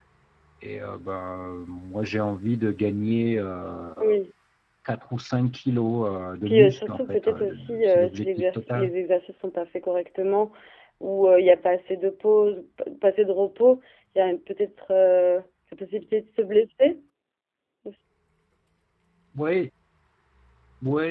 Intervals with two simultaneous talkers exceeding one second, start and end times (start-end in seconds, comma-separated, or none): 6.5-8.9